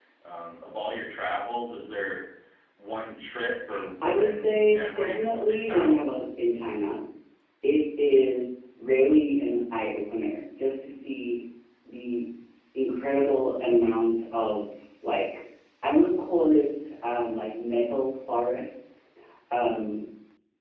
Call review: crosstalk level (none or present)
present